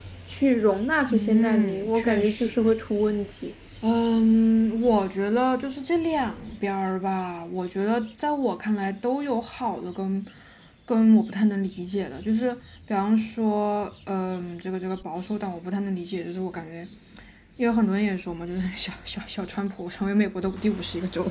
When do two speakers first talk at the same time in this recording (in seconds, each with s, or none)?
1.1 s